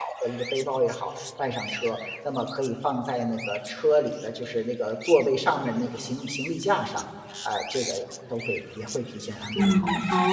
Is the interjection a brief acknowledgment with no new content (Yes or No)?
No